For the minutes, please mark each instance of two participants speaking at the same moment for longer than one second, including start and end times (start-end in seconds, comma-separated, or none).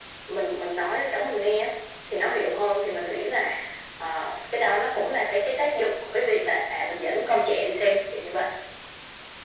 none